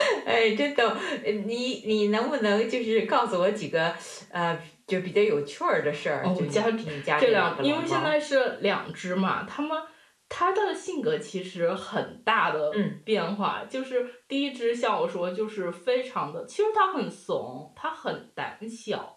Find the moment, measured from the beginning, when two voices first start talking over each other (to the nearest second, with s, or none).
6 s